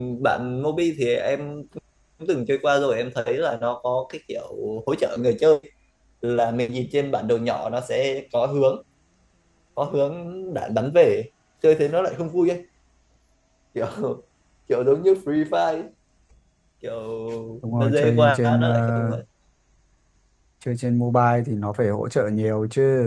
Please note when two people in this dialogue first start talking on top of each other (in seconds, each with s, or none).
17.7 s